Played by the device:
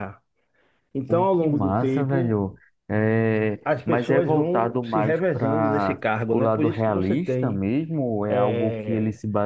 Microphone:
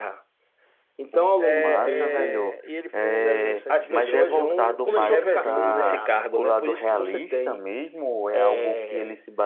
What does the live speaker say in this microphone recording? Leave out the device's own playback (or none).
É, é, e ele foi um zero zero sete brilhante, rapaz. Começou com Cassino Royale,